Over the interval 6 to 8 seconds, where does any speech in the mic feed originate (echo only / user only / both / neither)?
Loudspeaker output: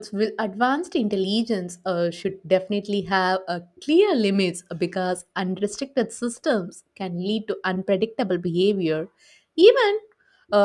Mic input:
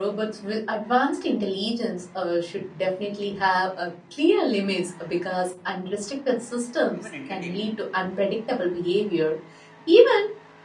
both